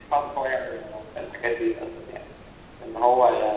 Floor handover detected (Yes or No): No